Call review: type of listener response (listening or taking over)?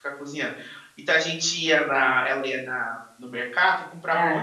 listening